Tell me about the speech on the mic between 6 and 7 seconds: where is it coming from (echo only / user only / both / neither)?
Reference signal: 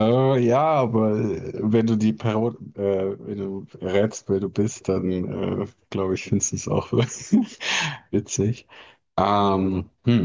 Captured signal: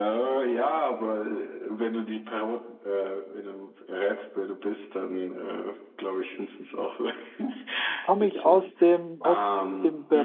echo only